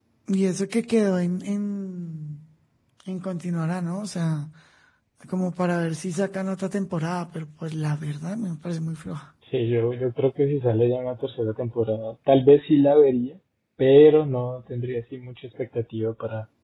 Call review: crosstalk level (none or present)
none